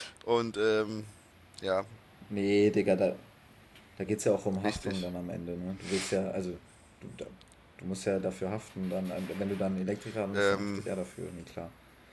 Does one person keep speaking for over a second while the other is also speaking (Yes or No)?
No